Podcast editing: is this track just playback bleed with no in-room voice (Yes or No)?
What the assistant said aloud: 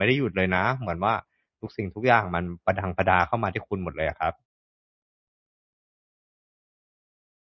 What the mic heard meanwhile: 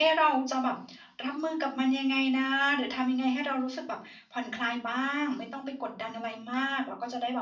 No